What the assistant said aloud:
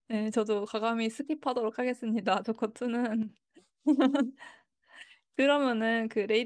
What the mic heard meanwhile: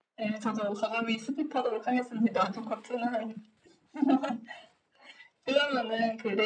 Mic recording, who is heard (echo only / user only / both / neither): echo only